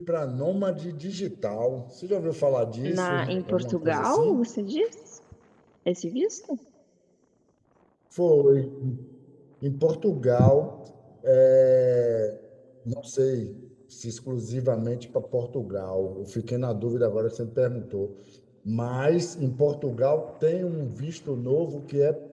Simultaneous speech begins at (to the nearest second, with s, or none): 3 s